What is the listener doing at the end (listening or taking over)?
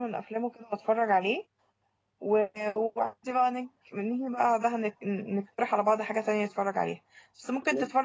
listening